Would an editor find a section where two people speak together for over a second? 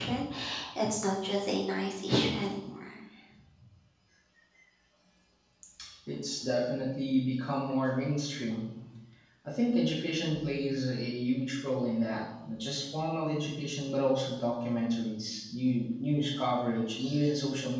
No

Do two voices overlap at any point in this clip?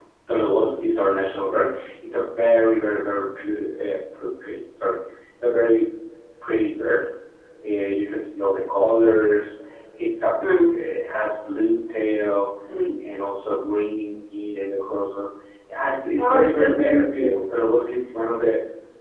Yes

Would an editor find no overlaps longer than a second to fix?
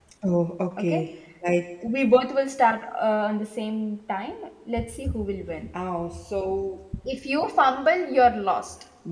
Yes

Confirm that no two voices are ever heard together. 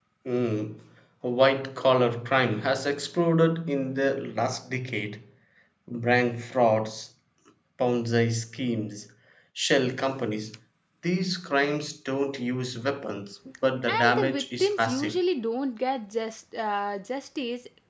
No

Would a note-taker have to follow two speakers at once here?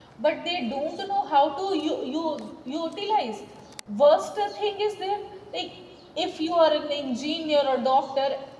No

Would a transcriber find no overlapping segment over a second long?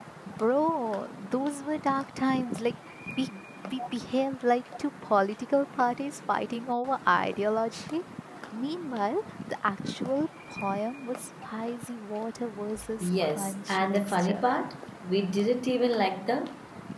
No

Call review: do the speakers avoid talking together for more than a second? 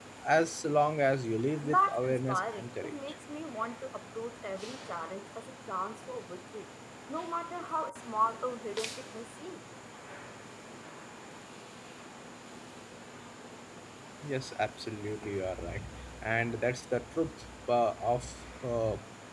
No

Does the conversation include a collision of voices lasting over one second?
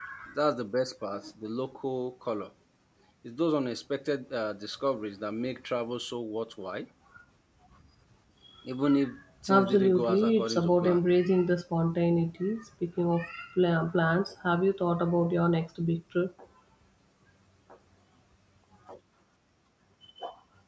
Yes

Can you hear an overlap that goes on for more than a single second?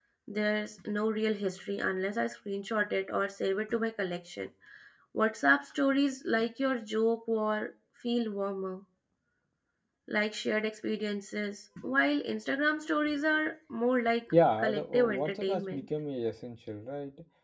Yes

